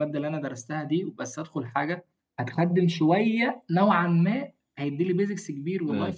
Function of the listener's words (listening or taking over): listening